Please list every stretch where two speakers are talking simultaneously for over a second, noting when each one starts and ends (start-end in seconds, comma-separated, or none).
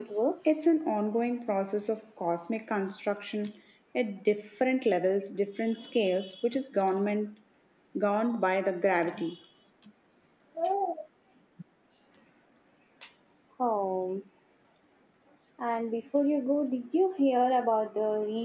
none